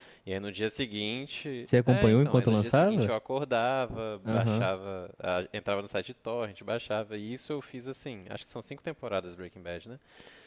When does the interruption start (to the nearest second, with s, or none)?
2 s